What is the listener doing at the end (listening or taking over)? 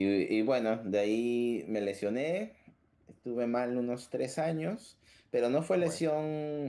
listening